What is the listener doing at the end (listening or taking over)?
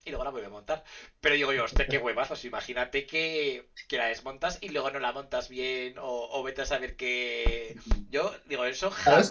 listening